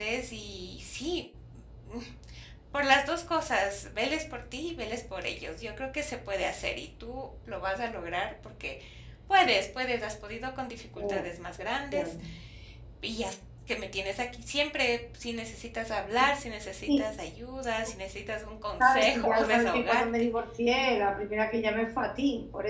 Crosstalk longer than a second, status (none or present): present